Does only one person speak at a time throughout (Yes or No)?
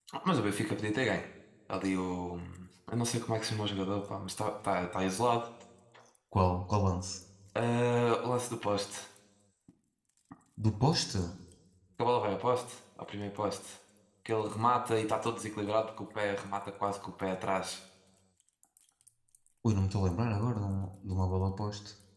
Yes